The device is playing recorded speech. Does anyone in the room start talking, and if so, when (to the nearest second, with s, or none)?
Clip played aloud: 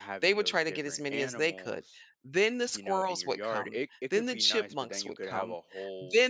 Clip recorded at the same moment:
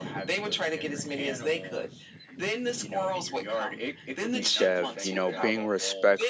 4 s